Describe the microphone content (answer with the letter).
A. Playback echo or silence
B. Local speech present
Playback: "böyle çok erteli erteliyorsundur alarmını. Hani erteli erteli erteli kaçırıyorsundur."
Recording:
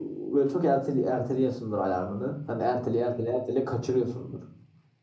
A